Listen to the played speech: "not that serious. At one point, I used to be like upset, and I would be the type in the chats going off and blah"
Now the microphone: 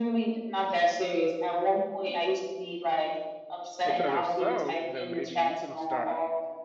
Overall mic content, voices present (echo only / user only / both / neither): both